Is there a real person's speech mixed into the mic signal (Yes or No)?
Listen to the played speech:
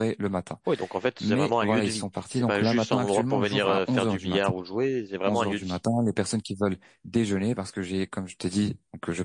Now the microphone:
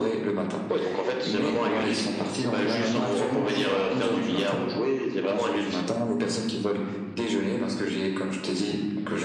No